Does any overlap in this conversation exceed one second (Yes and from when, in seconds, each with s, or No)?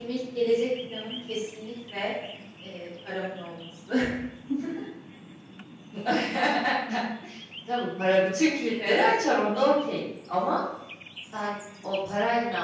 No